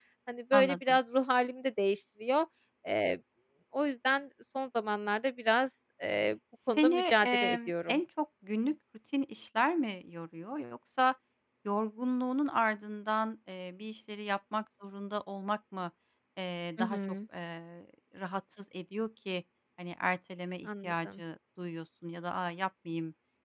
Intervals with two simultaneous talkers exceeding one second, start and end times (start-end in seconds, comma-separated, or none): 6.8-8.0